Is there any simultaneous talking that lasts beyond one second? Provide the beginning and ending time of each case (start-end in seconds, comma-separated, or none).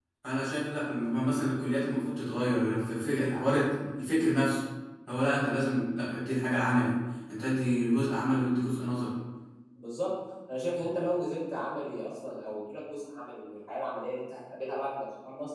none